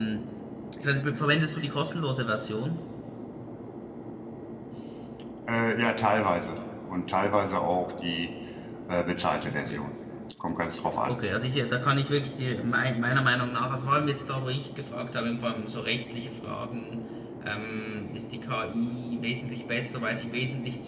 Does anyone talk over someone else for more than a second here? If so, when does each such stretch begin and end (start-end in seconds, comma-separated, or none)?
none